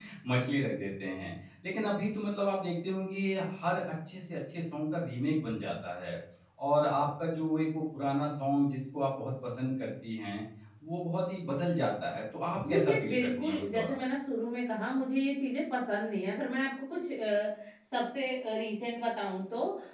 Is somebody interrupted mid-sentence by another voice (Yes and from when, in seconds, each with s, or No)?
Yes, from 12.6 s